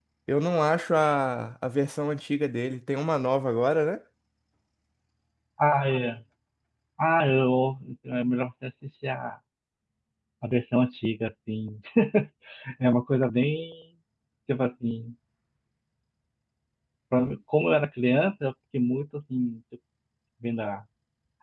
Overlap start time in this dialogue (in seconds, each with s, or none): none